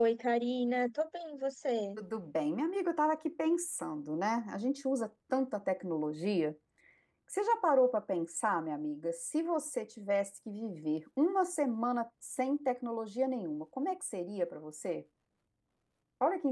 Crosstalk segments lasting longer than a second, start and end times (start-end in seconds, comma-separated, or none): none